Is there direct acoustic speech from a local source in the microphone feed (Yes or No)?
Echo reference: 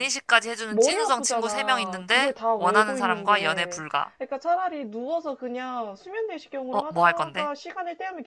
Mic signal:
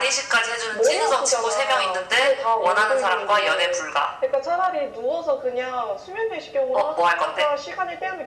No